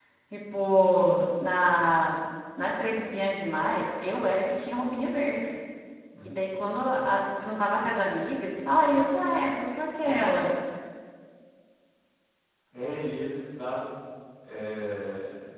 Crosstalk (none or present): none